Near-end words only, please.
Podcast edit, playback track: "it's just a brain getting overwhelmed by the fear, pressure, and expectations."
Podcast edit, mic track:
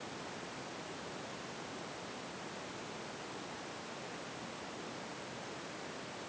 none

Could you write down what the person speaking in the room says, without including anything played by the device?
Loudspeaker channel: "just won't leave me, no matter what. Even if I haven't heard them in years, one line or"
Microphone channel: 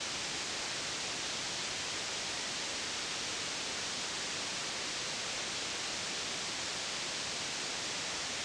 none

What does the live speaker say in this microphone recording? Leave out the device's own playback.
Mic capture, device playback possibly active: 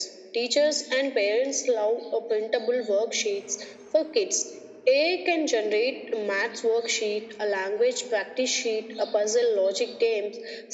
none

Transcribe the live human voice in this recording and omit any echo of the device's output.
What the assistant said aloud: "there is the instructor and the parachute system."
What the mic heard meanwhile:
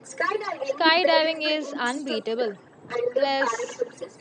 skydiving is unbeatable. Plus,

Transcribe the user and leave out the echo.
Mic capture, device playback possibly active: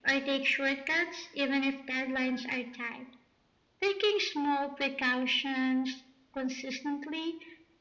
none

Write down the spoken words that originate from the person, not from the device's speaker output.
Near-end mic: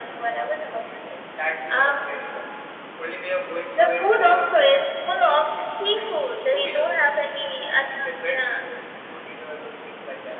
none

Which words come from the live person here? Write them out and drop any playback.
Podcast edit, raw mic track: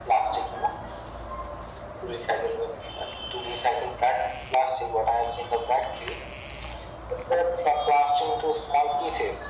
none

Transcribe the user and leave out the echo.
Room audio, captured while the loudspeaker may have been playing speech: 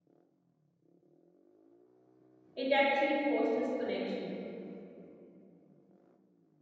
it actually fosters connection.

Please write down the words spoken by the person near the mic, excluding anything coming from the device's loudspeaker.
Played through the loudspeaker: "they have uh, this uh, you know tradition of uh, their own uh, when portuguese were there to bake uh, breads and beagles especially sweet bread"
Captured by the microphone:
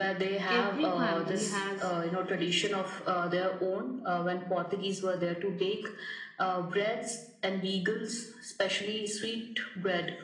Every family has

